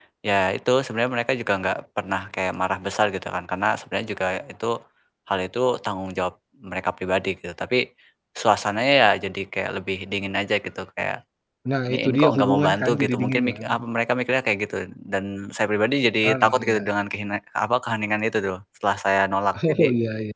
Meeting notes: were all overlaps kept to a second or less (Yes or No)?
No